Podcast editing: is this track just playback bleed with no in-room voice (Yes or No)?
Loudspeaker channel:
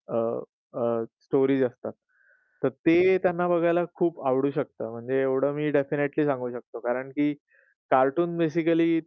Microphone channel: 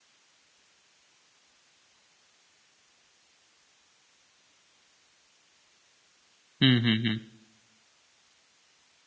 No